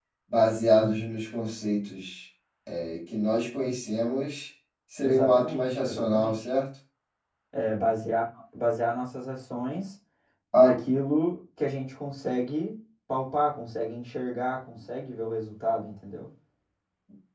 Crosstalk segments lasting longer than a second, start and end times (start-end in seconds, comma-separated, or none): 5.0-6.5